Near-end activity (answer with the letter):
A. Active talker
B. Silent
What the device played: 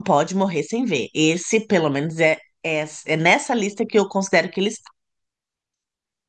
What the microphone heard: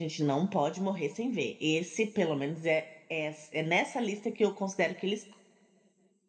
B